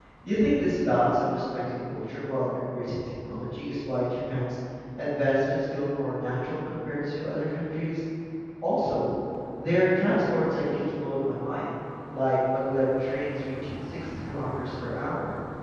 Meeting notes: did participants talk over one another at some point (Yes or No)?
No